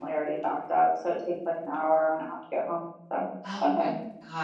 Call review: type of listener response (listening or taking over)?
taking over